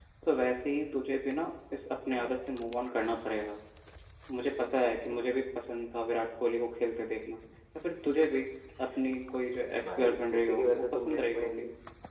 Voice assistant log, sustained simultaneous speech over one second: present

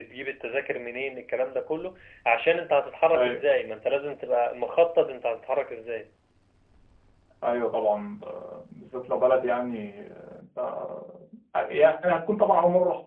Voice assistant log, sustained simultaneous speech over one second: none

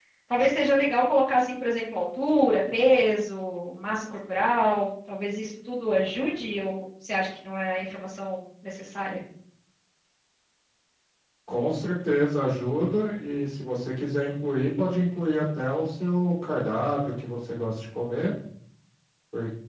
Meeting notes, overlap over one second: none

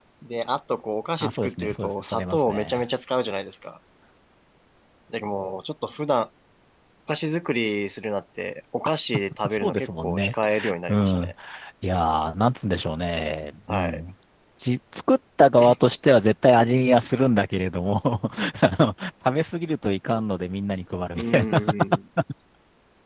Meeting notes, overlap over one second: present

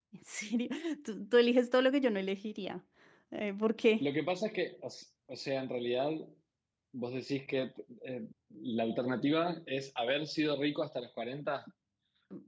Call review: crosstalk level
none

